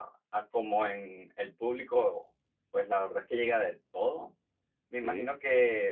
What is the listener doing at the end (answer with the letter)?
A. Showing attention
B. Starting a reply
A